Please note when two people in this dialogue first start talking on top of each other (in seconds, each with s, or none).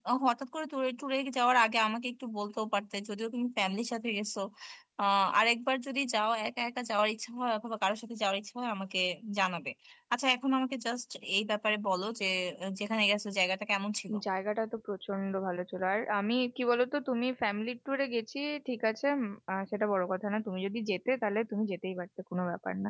none